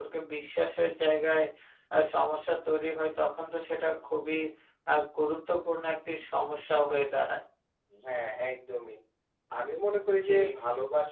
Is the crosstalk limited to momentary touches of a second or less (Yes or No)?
Yes